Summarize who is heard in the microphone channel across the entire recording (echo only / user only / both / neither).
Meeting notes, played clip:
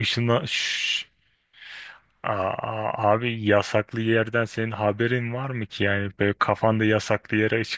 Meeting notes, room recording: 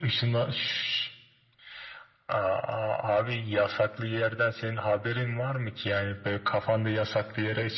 echo only